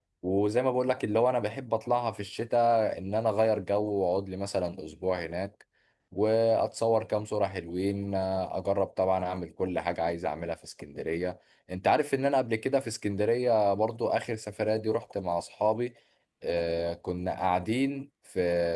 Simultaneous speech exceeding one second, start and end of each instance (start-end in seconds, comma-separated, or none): none